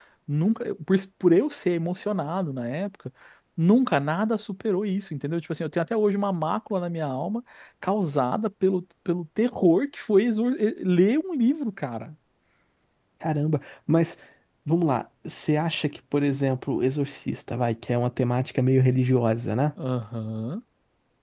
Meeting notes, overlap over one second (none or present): none